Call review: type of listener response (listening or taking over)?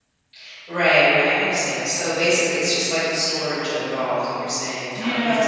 taking over